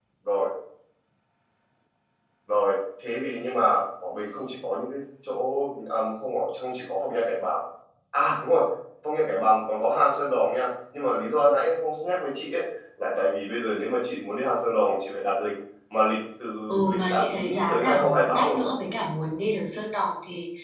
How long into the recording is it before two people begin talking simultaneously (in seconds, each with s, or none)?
16.9 s